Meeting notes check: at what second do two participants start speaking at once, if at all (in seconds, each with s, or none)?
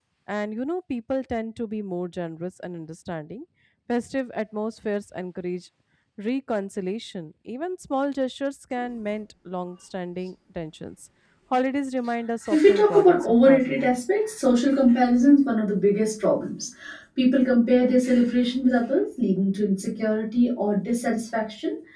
12.4 s